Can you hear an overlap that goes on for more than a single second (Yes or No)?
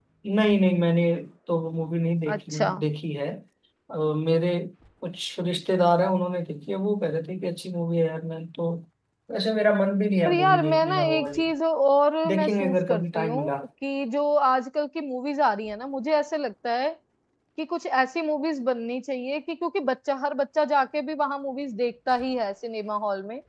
Yes